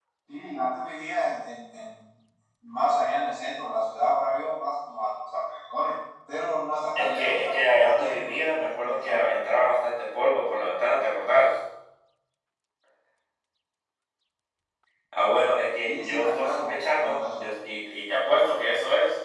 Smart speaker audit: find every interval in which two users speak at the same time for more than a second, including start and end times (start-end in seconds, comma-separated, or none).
7.0-9.4, 15.8-17.5